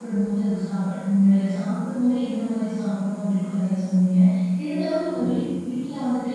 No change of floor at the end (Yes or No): Yes